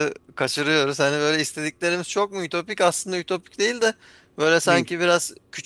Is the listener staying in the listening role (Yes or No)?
Yes